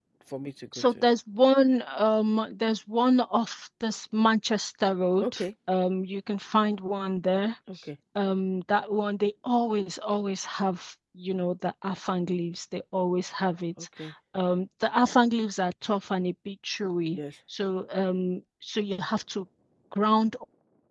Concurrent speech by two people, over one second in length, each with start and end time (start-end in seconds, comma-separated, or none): none